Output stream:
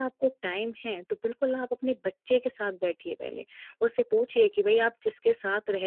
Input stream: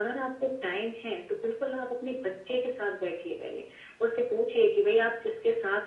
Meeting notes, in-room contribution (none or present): none